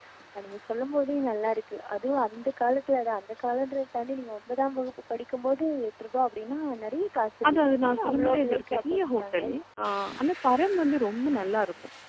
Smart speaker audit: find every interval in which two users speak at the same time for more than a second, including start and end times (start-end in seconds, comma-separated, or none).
7.5-9.4